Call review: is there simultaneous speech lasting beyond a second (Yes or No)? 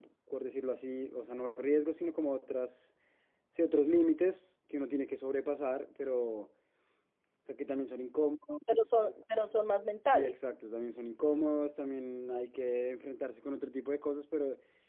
No